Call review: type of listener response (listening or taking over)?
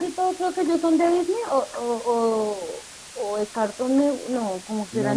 taking over